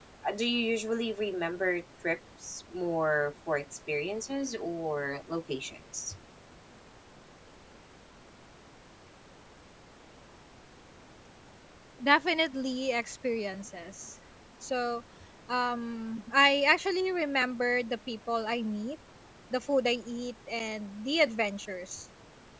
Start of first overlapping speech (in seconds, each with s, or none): none